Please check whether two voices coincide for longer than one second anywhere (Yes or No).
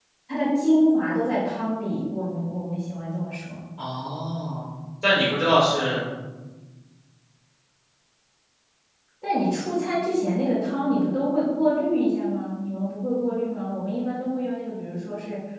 No